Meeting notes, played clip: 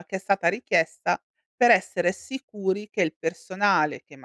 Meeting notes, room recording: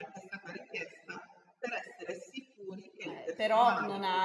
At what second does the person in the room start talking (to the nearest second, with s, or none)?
3 s